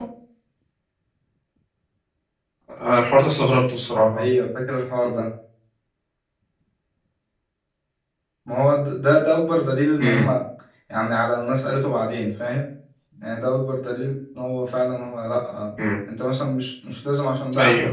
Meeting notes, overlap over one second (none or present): none